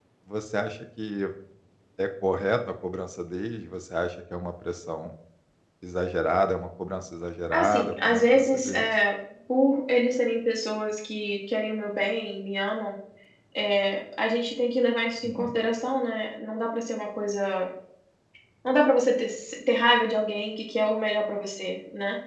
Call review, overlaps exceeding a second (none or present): present